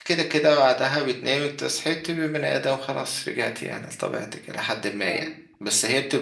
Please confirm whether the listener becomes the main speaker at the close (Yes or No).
No